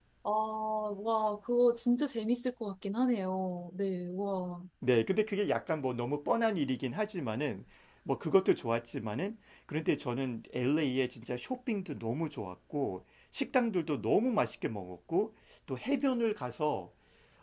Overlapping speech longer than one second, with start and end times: none

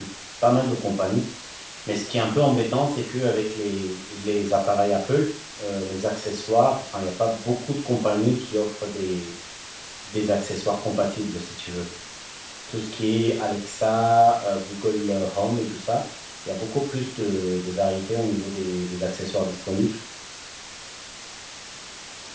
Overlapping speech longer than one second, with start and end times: none

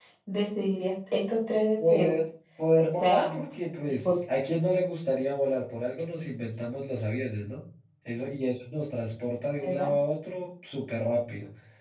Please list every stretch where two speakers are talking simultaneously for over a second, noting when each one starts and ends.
none

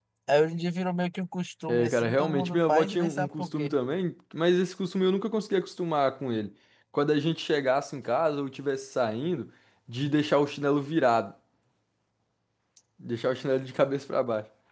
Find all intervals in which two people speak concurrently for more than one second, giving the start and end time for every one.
1.7-3.8

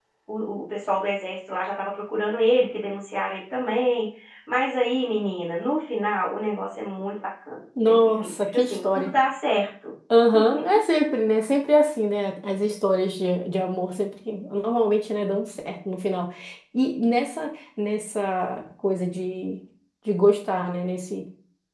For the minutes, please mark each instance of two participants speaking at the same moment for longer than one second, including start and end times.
7.9-9.1

